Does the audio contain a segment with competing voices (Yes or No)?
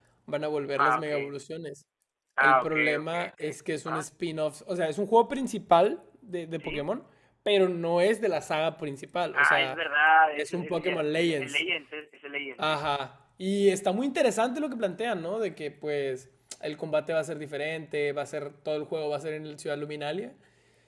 Yes